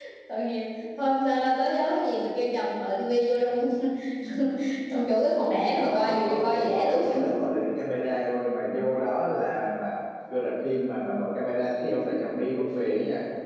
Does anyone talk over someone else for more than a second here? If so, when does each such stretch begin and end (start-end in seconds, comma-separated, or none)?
5.8-7.2